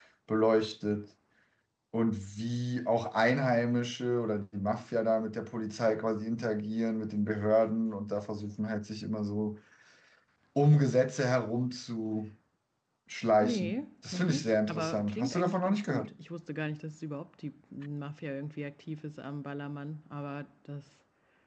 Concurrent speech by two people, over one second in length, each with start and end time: 14.1-16.1

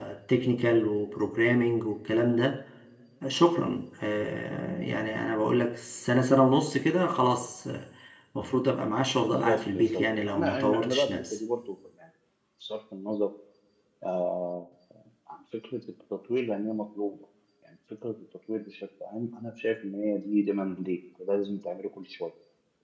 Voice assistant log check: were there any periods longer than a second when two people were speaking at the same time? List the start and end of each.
9.4-11.4

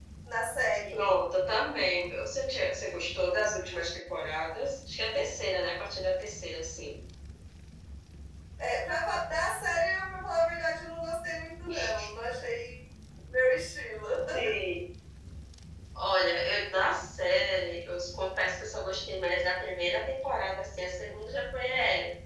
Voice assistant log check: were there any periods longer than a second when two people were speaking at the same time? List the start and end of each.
none

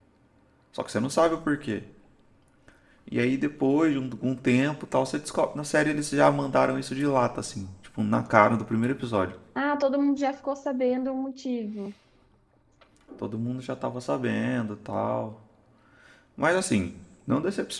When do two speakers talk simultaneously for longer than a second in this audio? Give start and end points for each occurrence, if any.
none

